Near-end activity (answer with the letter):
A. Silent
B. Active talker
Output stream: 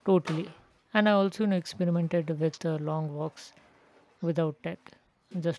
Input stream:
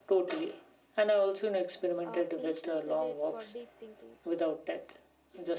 B